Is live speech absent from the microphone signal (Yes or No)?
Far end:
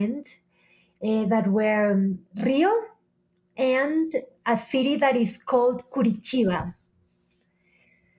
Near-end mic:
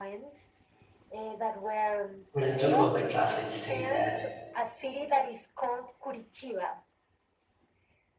No